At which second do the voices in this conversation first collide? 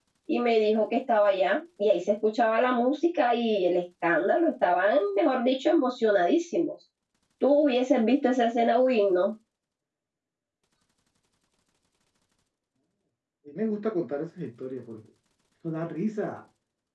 none

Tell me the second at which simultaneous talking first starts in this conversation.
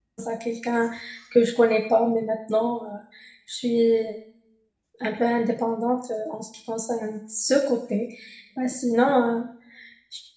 none

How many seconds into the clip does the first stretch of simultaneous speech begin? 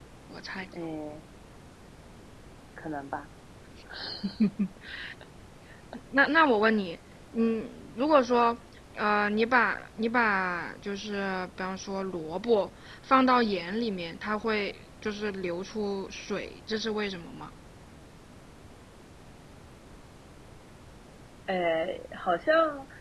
none

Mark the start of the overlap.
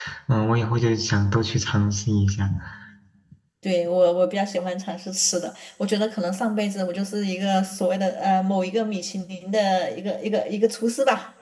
none

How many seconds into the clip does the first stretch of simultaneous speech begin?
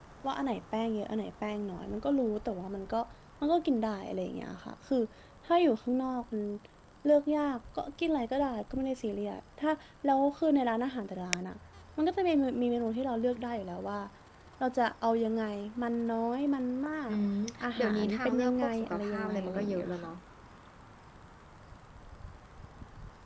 17.8 s

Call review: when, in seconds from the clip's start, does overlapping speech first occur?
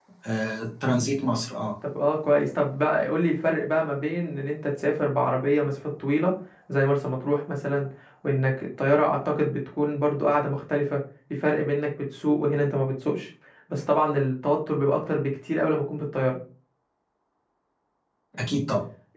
none

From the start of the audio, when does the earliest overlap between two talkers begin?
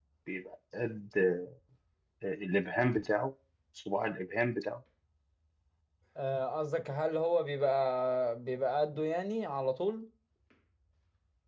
none

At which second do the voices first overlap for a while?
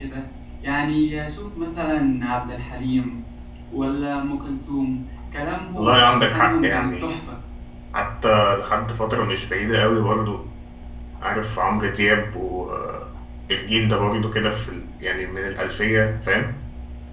5.8 s

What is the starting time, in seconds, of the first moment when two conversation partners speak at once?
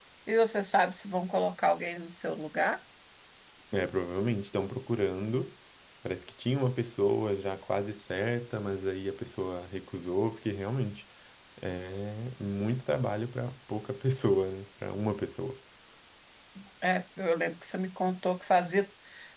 none

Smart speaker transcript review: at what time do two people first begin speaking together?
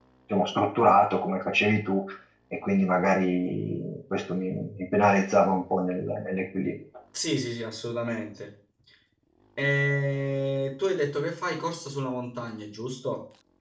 none

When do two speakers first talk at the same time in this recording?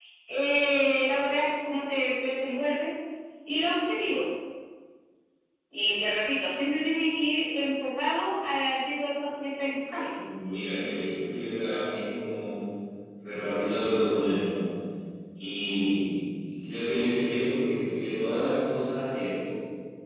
none

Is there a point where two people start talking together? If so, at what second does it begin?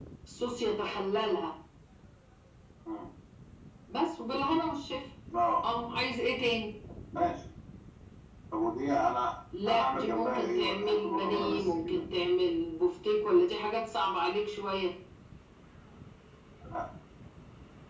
9.5 s

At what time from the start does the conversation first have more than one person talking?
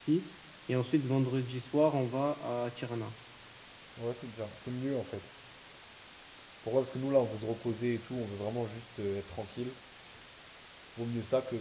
none

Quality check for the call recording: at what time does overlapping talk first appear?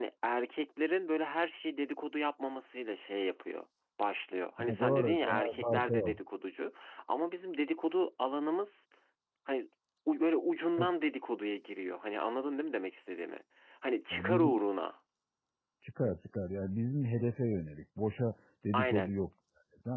4.6 s

